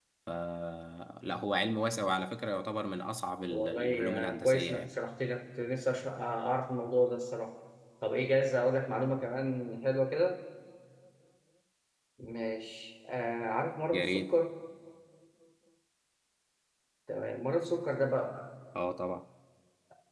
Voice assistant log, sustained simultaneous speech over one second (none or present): present